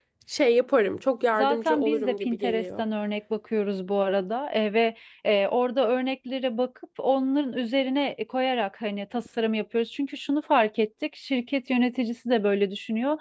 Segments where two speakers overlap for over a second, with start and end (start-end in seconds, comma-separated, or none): 1.3-2.8